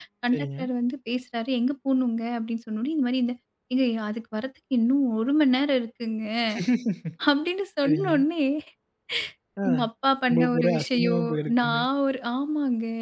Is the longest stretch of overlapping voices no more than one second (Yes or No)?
No